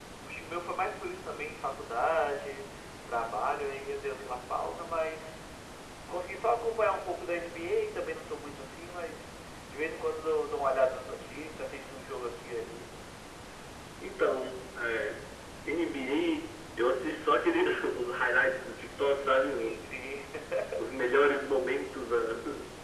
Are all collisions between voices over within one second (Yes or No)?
Yes